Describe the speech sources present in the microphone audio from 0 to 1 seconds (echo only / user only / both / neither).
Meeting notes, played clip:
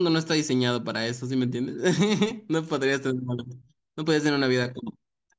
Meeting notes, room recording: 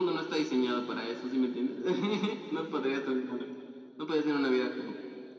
echo only